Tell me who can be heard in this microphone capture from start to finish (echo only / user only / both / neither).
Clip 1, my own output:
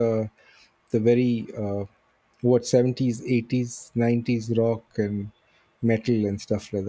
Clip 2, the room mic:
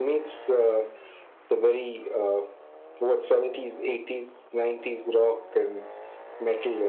echo only